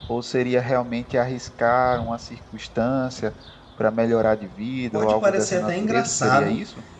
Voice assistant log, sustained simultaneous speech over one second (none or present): present